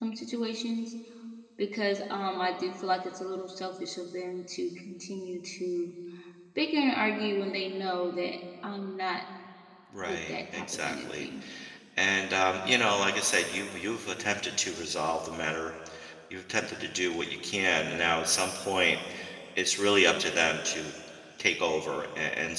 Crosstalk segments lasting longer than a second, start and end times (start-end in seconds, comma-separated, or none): 10.0-11.2